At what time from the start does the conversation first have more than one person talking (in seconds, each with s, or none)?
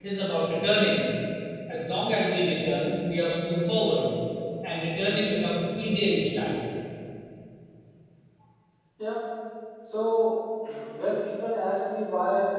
none